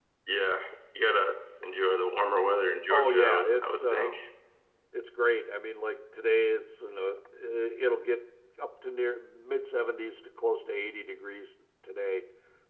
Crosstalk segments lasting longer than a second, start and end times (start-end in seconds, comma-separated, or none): 2.9-4.1